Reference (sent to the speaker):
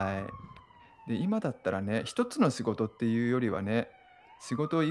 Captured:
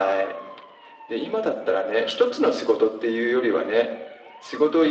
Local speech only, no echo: none

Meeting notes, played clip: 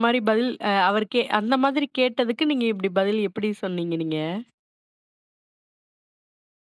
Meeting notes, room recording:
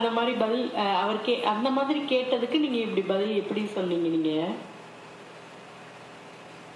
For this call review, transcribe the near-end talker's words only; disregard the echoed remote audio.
none

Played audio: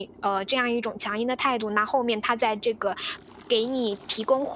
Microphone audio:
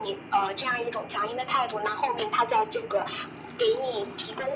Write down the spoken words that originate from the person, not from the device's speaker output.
none

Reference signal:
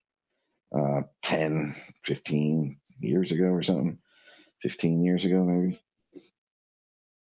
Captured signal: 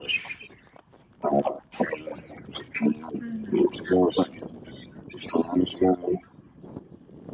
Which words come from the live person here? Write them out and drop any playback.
Mhm.

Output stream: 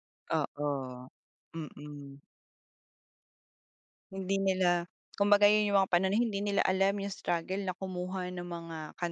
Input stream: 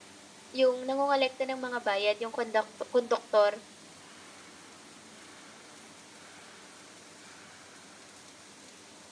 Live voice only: yung nangongolekta ng mga bayad, yung konduk konduktor.

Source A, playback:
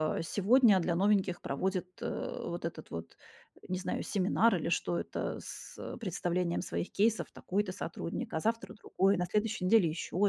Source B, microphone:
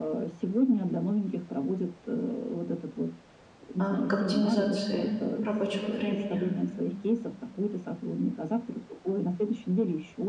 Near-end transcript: э, к оптимизации рабочего времени.

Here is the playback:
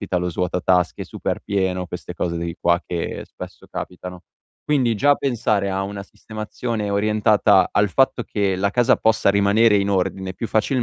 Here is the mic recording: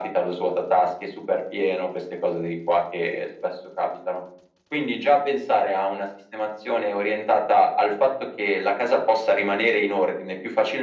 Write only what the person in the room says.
none

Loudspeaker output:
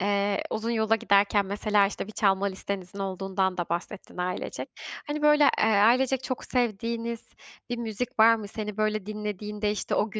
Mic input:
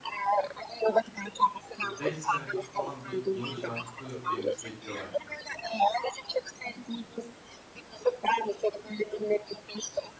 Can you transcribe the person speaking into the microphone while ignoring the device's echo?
bir 5 senede bir falan bir yeni şarkı benimseyebiliyorlar kendilerine,

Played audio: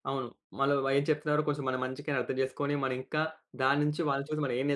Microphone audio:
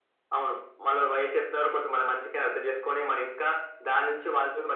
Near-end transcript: none

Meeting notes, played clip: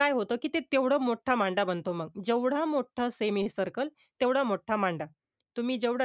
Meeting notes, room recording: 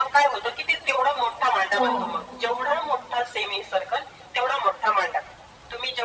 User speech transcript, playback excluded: हो, हो.

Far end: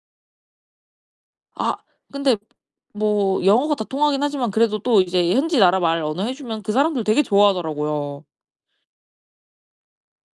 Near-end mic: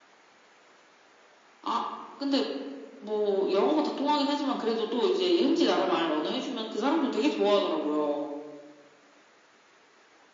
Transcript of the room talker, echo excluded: none

